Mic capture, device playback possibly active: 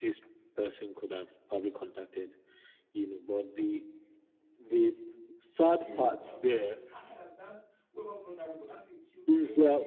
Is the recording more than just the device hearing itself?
Yes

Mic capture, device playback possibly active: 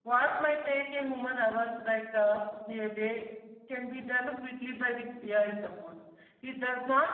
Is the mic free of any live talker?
No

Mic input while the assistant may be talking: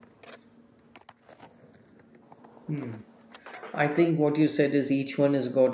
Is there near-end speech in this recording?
Yes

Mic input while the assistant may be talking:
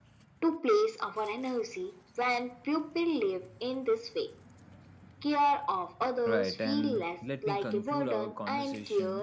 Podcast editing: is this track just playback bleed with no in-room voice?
No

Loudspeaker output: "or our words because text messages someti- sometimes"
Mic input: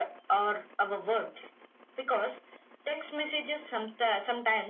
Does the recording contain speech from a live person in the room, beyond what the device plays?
No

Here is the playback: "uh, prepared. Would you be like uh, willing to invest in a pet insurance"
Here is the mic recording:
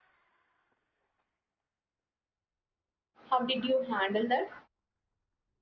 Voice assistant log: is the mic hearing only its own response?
No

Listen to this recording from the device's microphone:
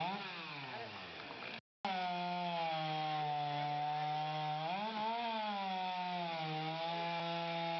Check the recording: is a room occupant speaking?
No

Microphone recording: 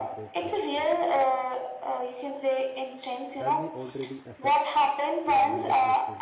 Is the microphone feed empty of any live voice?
No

